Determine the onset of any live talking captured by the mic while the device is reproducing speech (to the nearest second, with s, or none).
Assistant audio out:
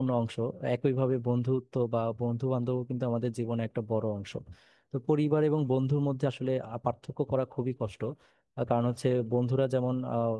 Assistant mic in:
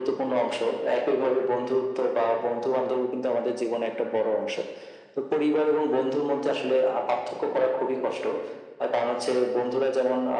none